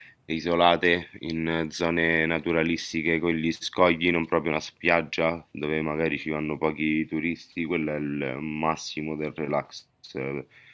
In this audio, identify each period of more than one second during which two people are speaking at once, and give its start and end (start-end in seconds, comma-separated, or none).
none